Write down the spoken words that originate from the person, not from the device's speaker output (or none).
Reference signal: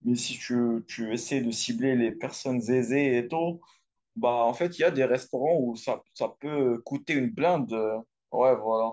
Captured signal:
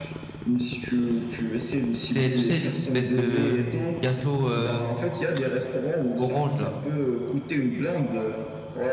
C'est, tu sais, les espèces de gâteaux euh, frits orange, là.